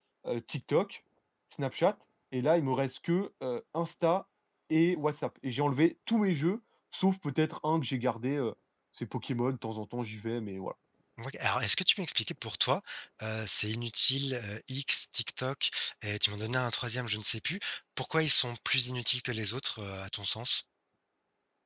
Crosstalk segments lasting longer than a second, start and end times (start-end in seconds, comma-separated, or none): none